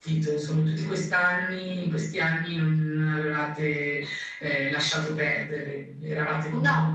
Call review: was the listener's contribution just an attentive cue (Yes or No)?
Yes